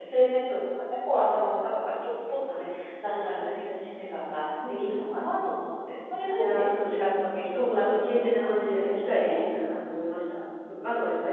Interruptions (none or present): present